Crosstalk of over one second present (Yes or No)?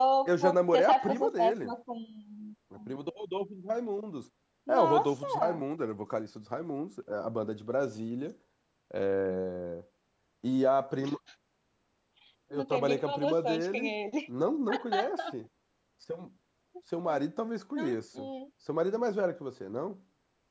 Yes